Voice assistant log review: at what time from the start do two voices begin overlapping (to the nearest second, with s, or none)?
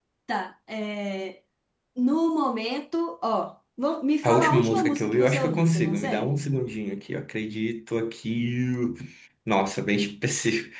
4 s